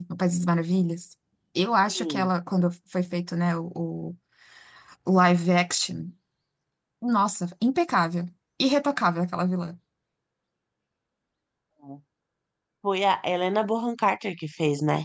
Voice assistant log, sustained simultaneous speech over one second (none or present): none